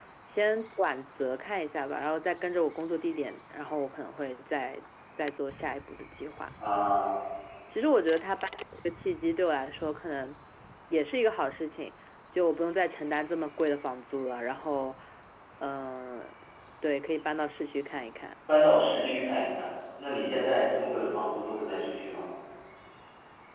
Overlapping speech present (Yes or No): No